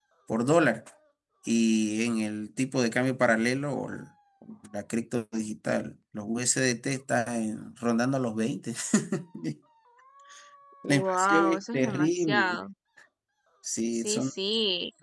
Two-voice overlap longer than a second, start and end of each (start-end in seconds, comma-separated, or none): 10.8-12.6